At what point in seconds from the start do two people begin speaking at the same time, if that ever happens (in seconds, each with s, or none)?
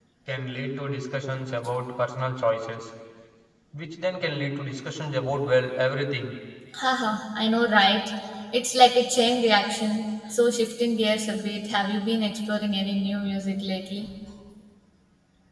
none